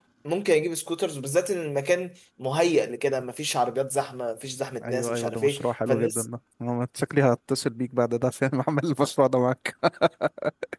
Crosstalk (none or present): present